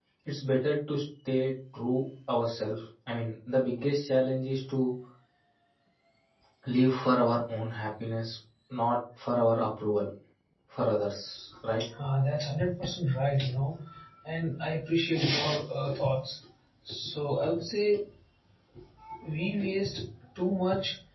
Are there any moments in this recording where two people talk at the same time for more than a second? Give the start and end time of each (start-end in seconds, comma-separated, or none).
none